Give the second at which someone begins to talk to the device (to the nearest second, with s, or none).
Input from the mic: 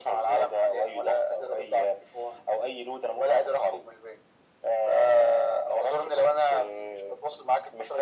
none